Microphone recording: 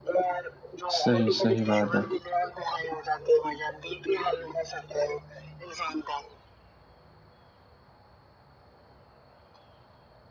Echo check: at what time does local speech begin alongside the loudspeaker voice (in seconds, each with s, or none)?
1.0 s